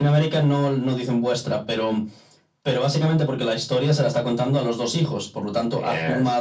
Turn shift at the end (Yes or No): No